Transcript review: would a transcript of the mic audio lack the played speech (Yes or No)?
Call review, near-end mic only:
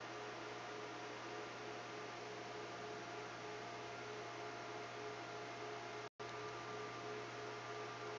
Yes